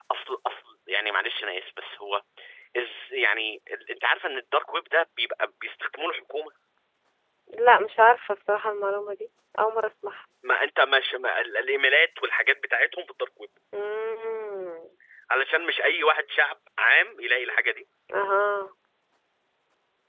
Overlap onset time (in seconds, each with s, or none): none